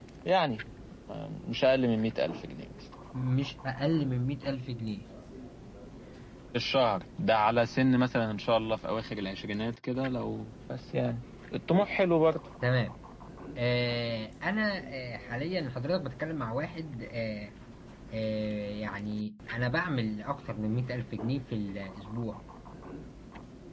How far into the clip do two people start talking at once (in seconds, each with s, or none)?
none